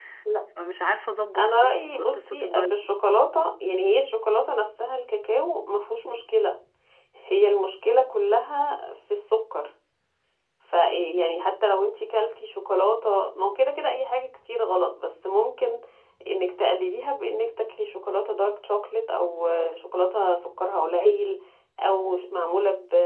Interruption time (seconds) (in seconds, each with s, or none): 1.4 s